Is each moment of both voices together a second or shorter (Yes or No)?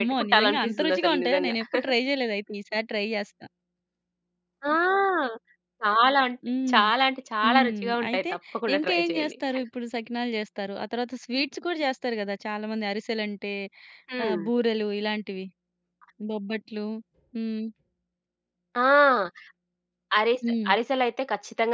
No